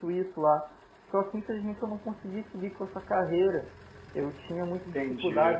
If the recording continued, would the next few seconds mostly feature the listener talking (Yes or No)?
No